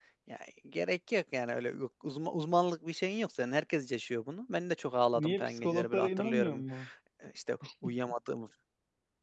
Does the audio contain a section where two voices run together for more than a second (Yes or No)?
Yes